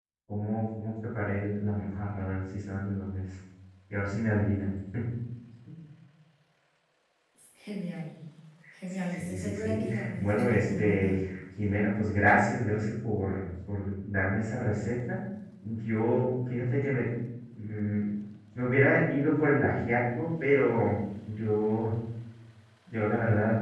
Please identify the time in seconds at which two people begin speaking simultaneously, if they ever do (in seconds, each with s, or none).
9.1 s